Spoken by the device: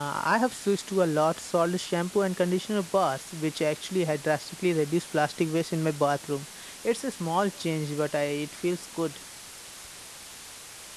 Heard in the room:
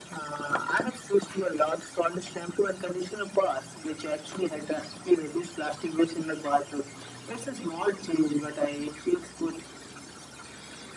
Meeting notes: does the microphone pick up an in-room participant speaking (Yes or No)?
No